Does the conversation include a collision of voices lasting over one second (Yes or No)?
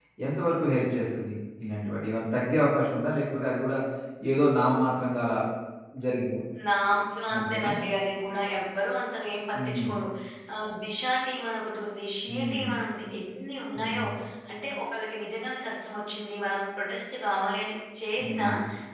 No